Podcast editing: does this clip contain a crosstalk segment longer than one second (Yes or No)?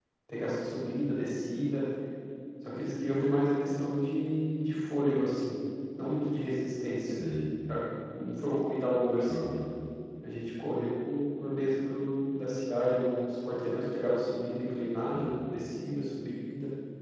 No